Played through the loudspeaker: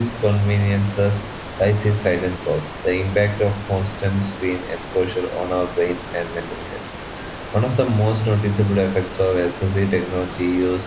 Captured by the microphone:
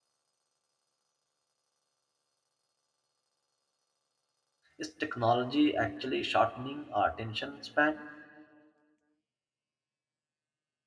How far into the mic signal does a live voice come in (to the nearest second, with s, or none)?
5 s